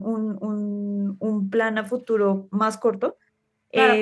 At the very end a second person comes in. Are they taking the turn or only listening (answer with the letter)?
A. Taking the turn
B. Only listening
A